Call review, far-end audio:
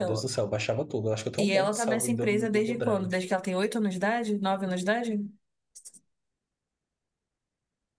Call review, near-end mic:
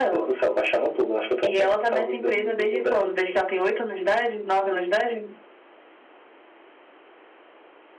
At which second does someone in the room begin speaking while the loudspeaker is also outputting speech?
none

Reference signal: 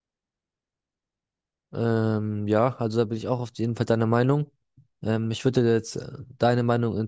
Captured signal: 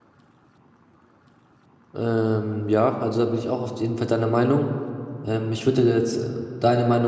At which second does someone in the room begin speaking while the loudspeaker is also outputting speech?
none

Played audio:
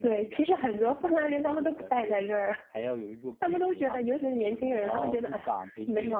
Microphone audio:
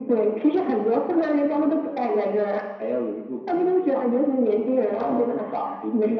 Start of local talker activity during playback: none

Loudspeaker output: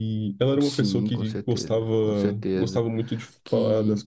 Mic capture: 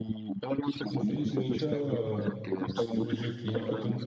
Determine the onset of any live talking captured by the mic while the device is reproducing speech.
0.9 s

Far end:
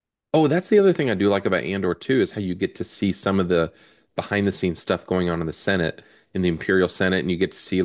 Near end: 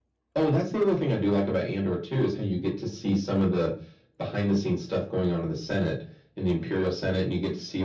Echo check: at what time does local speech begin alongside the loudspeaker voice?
none

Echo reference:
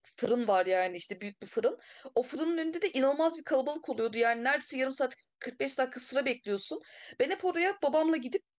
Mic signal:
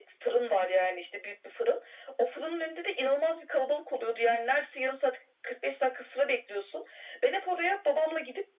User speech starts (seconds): none

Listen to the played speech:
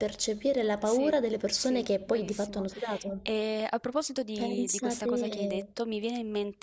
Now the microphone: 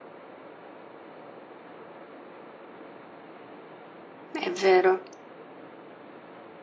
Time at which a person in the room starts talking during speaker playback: 4.4 s

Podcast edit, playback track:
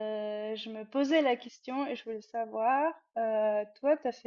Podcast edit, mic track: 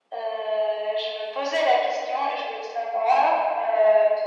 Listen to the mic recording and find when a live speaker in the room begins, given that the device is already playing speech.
none

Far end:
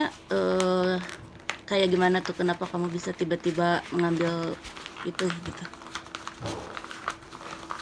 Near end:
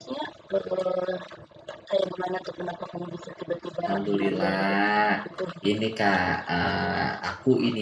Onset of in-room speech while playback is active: 3.8 s

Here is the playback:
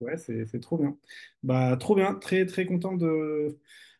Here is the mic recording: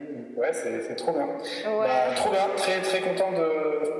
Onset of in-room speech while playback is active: 1.6 s

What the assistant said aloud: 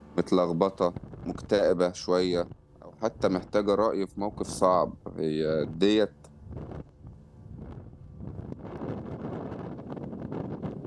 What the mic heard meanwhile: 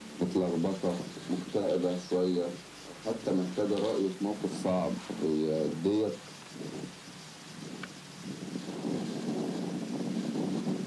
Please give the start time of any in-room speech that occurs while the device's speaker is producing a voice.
none

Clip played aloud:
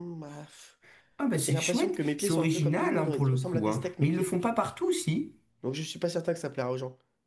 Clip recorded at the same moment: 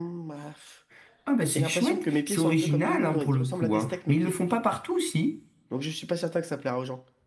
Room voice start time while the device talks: none

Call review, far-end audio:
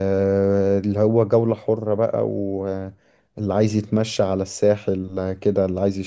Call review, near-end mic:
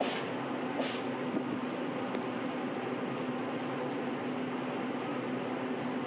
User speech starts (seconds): none

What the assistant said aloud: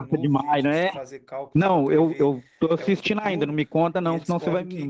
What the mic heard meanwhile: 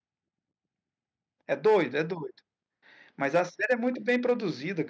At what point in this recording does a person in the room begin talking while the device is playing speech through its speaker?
1.5 s

